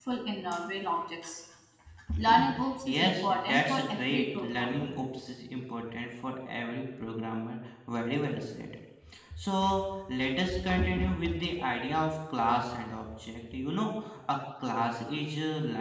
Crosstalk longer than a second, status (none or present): present